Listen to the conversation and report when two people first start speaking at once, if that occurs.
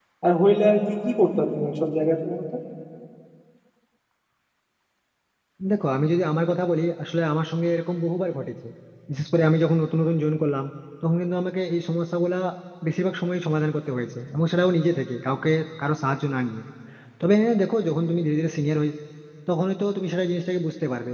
none

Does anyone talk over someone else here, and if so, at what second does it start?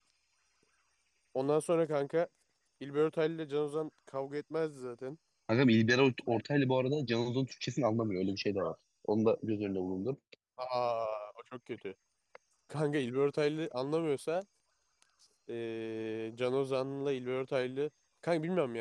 none

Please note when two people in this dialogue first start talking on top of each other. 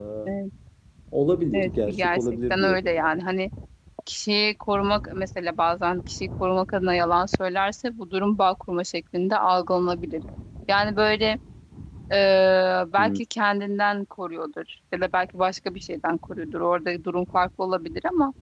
1.5 s

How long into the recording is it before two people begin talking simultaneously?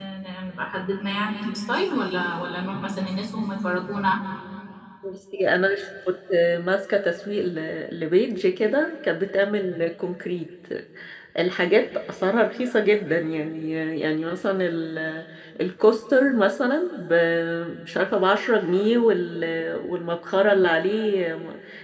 none

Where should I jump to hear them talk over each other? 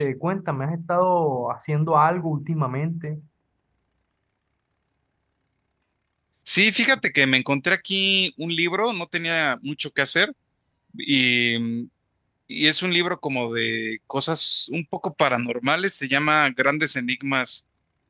none

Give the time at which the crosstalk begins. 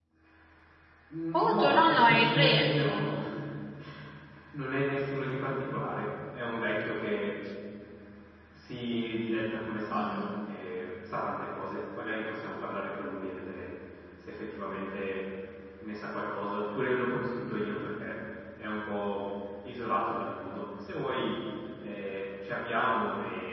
1.3 s

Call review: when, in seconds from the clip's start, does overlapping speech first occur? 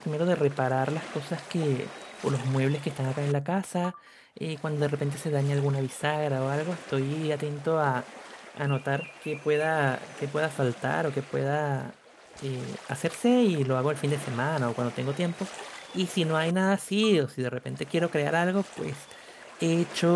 none

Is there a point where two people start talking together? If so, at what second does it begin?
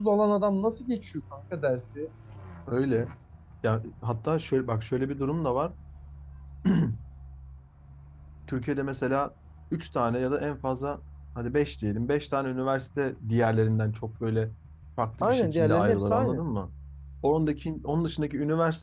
15.2 s

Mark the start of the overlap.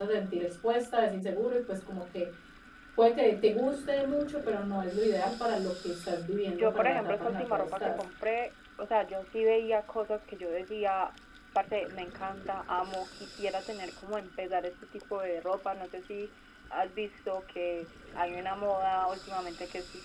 6.5 s

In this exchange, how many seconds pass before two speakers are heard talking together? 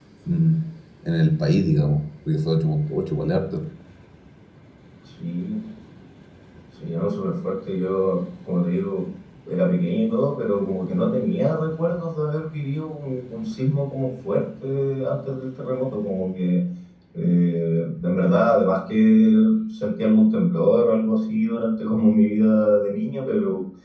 none

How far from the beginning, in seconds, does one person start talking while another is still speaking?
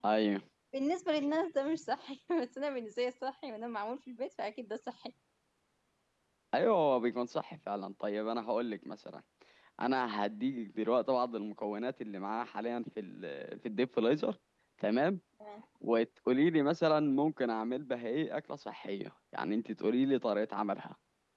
none

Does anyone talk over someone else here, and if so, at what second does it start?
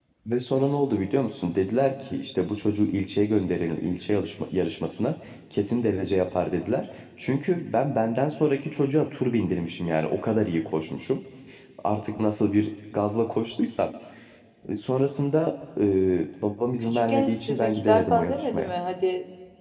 16.9 s

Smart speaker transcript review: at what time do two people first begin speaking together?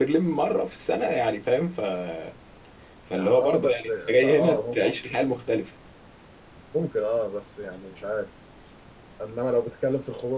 3.1 s

